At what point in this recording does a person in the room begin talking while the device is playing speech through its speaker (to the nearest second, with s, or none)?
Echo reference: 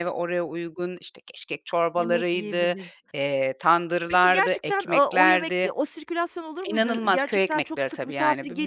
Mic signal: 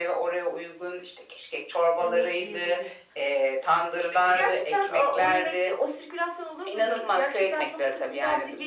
none